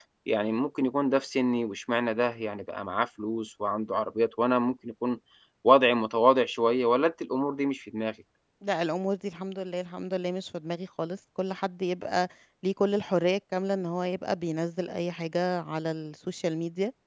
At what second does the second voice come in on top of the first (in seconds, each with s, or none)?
none